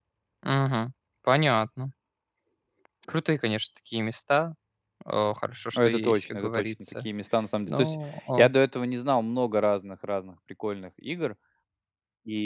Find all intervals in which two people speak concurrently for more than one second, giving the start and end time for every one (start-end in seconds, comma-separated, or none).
5.8-7.1